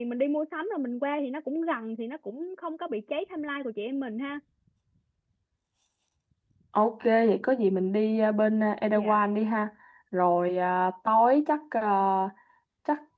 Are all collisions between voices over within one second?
Yes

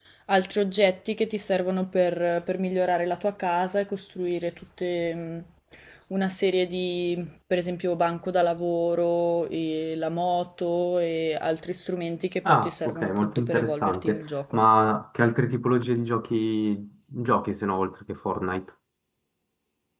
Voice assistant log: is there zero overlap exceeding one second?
No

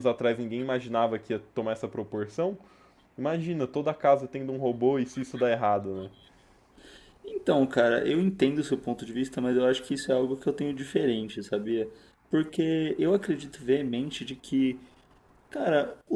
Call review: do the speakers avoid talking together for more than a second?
Yes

